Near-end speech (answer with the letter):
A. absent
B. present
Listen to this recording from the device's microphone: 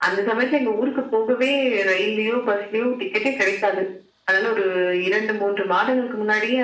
A